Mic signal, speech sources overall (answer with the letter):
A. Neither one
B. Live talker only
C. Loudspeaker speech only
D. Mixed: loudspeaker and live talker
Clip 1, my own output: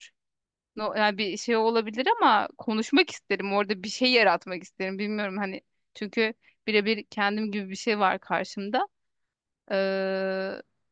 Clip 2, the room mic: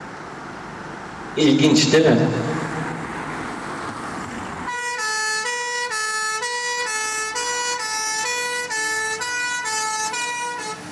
B